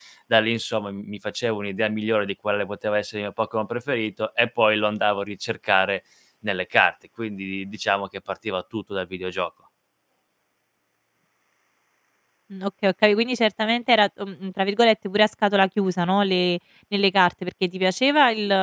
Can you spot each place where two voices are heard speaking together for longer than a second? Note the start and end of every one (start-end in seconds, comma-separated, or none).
none